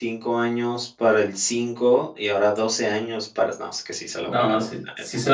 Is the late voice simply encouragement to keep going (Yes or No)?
No